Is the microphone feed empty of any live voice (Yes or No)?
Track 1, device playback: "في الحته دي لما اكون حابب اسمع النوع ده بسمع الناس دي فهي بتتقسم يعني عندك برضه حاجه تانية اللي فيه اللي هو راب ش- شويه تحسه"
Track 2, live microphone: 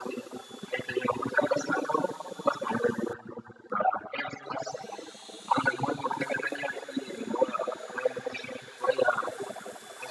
Yes